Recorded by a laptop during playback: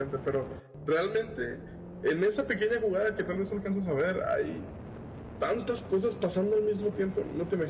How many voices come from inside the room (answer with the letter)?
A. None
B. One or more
B